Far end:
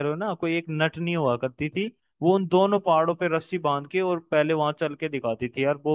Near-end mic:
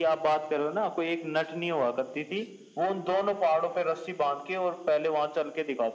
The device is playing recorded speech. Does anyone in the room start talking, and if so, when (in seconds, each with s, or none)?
none